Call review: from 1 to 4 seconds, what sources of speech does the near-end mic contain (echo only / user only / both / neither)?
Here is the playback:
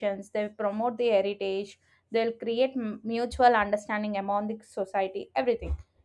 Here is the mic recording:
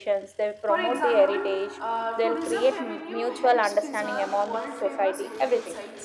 both